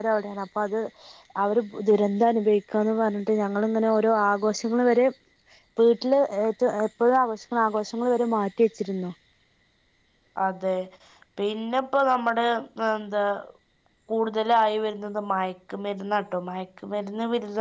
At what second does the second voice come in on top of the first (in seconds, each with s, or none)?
none